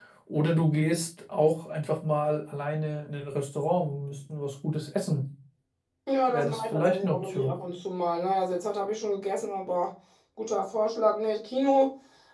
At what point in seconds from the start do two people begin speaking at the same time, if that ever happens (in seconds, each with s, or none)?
6.3 s